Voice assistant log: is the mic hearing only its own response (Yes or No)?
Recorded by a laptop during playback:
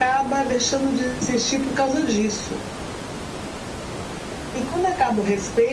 Yes